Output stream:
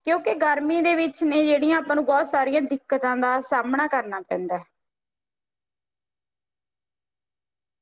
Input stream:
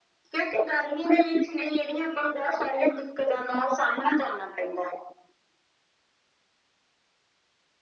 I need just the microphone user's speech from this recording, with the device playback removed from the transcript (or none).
none